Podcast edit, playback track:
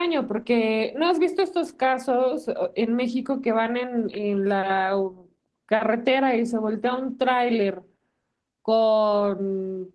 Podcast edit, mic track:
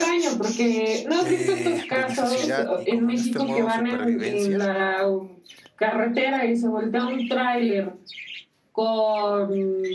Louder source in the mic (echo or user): echo